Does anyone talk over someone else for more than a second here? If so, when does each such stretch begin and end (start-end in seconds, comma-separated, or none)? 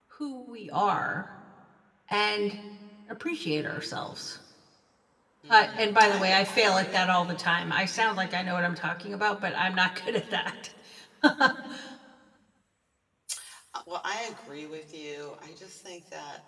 5.5-7.0